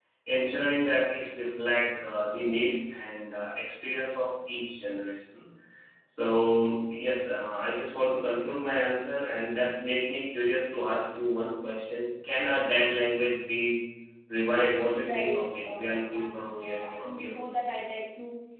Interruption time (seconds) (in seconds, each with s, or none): 15.0 s